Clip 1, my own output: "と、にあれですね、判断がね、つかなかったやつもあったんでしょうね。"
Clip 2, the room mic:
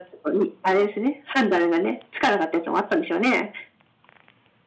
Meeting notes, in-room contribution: none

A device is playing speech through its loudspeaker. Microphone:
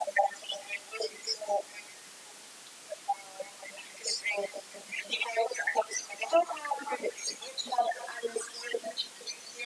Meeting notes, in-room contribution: none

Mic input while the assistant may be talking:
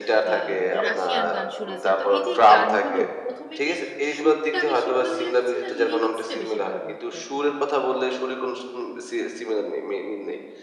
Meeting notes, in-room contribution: present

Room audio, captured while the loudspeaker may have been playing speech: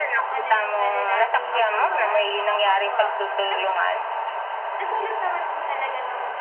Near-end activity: present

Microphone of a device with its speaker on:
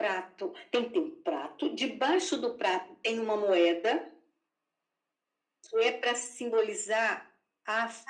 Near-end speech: none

